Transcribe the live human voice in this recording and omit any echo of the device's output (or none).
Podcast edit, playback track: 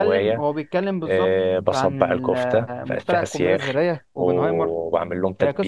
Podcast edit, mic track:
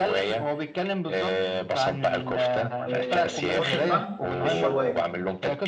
وتحط الفحم في الشوايه